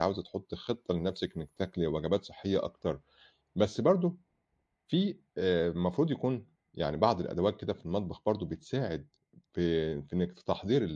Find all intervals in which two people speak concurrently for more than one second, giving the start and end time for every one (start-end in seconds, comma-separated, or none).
none